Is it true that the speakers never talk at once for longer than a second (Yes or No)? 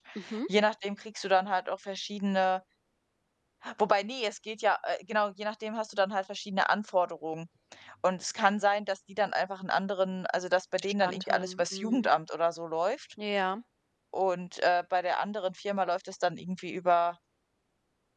No